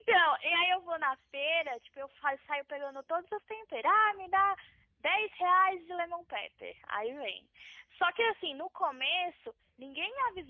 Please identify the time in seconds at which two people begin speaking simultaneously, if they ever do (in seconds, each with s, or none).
none